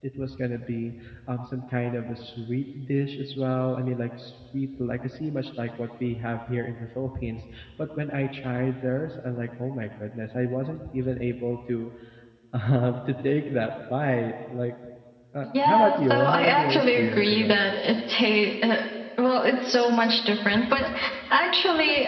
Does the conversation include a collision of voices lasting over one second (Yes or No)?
Yes